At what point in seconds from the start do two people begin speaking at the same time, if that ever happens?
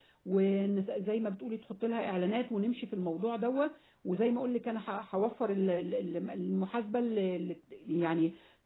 none

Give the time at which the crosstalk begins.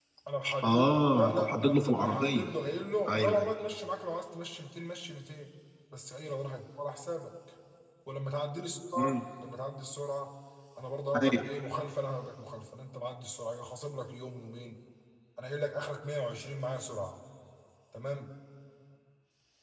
0.6 s

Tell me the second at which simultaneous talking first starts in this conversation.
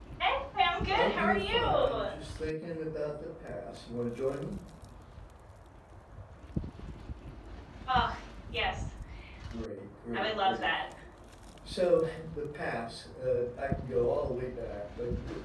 0.9 s

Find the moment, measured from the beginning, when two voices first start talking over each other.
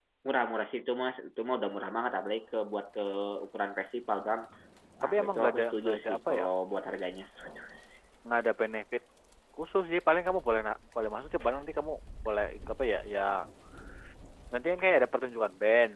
5.0 s

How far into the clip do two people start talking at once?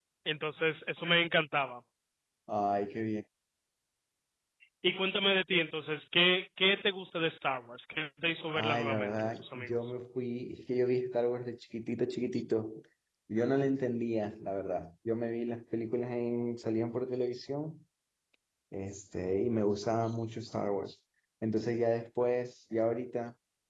8.5 s

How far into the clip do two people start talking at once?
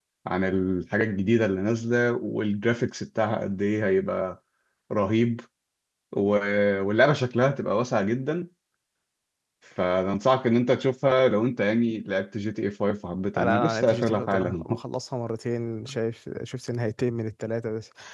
13.4 s

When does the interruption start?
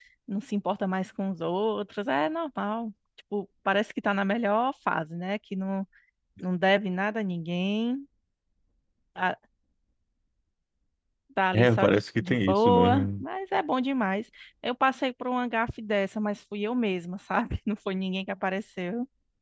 11.5 s

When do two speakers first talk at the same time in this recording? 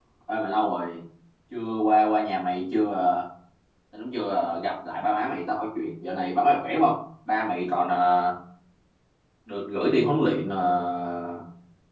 none

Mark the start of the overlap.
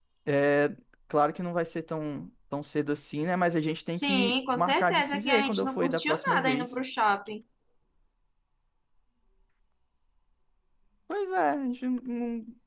3.9 s

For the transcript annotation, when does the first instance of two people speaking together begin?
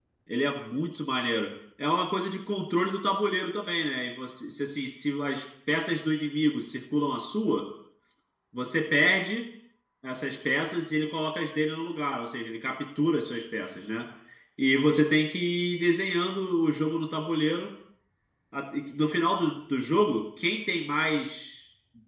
none

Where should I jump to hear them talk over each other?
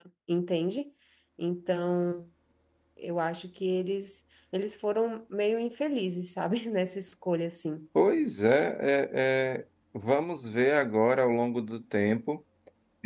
none

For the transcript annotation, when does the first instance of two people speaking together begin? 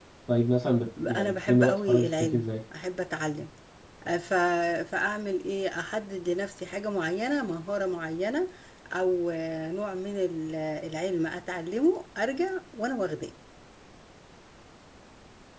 1.2 s

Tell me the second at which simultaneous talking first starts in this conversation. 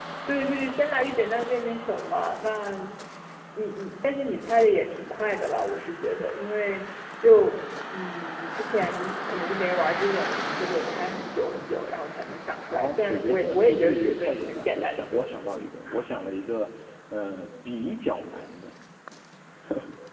12.7 s

